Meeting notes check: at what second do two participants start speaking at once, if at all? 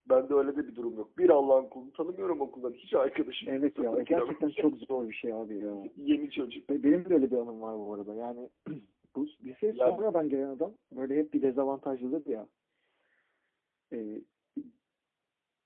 3.5 s

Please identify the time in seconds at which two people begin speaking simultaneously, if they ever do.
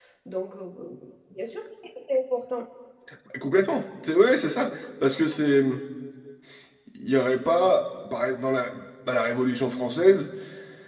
none

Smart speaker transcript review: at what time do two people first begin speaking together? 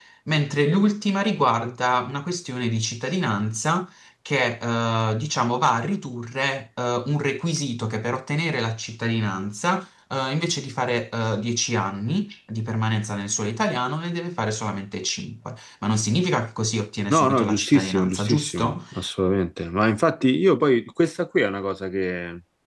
17.1 s

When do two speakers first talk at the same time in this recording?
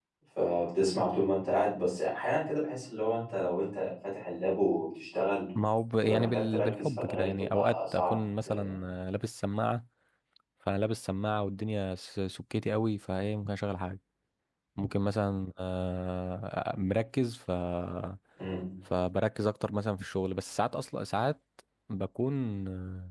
6.0 s

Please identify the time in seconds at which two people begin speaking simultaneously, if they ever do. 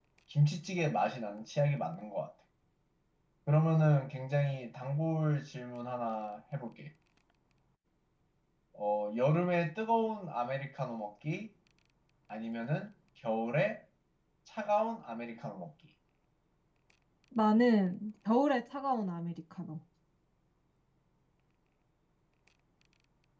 none

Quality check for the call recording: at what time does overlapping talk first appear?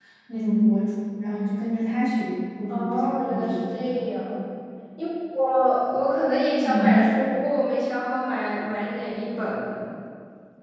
2.7 s

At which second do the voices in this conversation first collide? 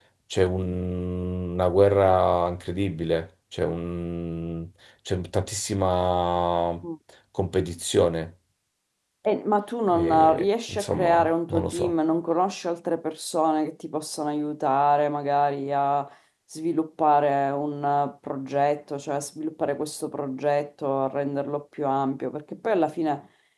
9.9 s

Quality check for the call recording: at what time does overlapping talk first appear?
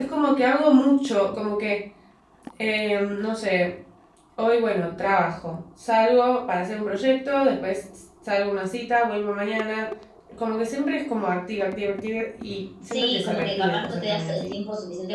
12.9 s

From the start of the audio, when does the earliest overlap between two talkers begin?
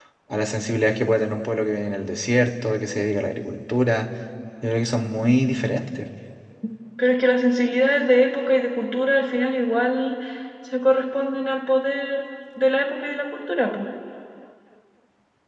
none

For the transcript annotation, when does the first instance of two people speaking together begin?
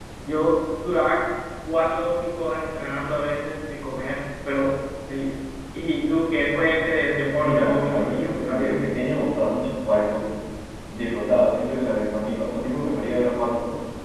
7.4 s

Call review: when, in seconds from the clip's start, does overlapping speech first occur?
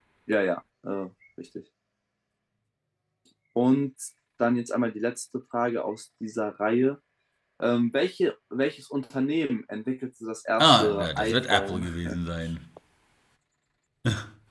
10.6 s

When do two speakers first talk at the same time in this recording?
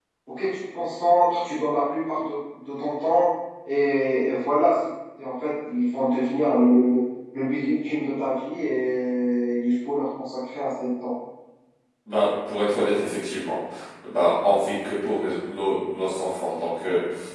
none

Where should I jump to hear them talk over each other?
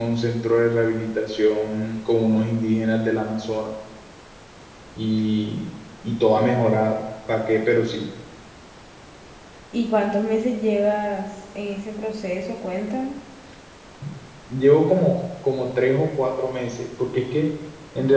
none

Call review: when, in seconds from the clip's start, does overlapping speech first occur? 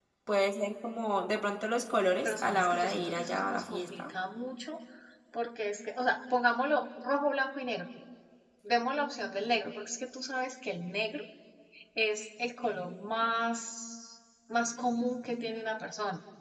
2.2 s

